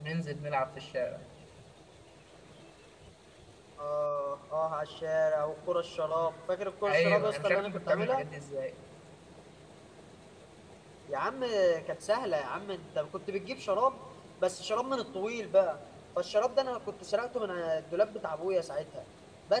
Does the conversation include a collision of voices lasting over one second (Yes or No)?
Yes